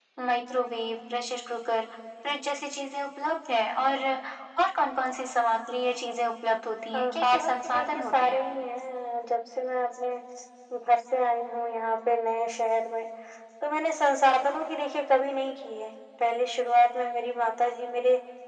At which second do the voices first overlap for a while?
7 s

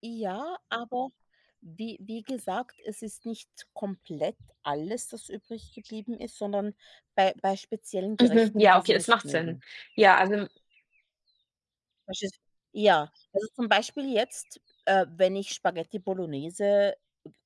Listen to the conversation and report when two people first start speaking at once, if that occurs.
8 s

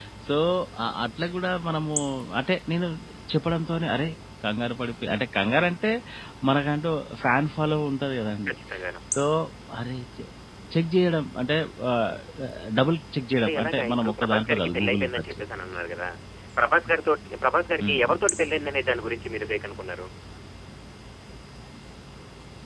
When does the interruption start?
13 s

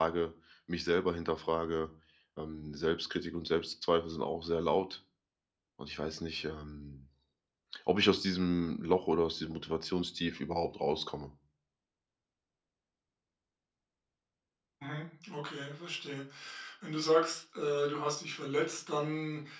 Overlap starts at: none

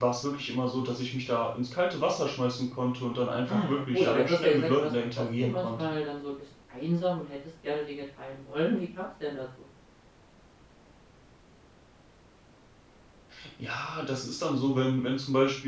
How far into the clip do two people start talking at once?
3 s

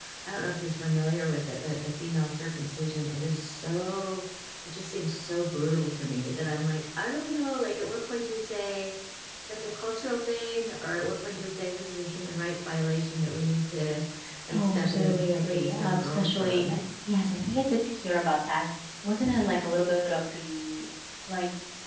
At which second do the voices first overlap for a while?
15 s

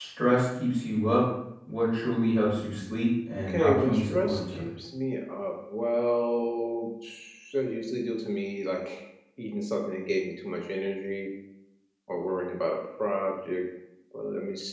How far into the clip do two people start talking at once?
3 s

